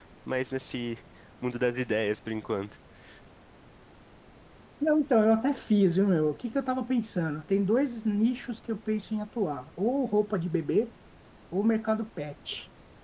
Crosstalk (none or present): none